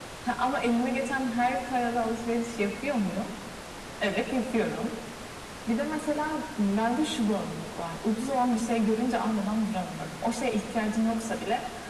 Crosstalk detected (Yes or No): No